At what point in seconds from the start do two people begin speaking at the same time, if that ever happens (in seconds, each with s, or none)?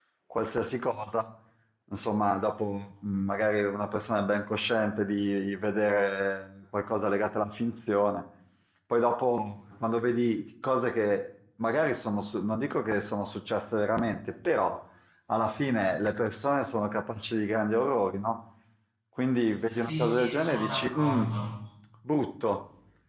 19.7 s